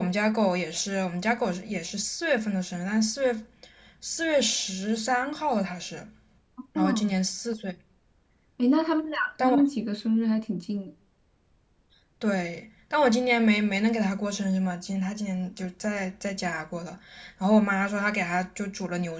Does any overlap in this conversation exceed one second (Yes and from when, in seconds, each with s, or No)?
No